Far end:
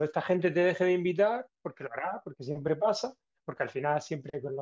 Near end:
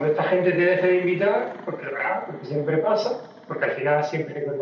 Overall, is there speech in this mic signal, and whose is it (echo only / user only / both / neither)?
echo only